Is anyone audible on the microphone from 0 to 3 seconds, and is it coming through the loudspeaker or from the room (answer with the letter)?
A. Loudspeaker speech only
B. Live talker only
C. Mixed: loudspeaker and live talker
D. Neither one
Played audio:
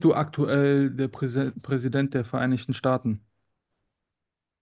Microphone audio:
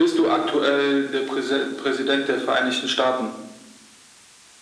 A